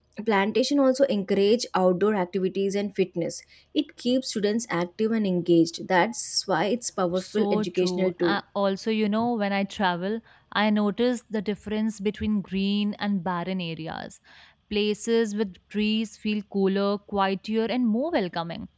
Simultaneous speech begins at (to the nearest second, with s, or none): 7 s